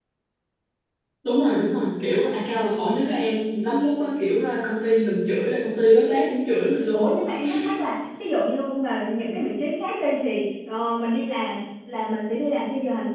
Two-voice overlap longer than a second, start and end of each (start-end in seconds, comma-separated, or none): none